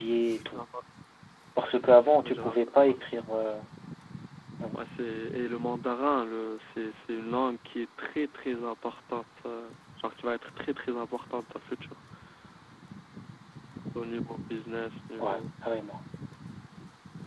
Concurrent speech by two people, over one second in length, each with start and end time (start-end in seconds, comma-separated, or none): 1.6-3.0